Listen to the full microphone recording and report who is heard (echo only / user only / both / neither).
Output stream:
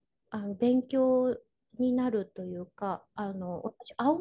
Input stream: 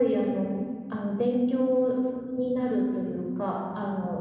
echo only